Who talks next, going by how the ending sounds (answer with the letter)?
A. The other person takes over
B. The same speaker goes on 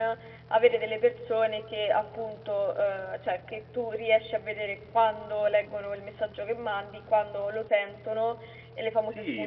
A